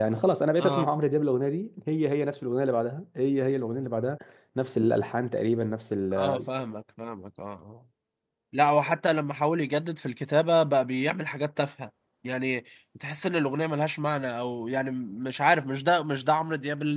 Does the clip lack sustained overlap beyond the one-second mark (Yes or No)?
Yes